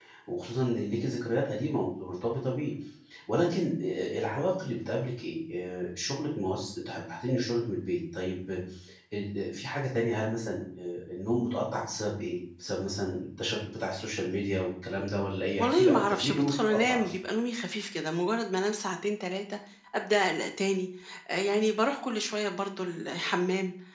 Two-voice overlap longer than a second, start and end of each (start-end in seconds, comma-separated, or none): 15.6-17.1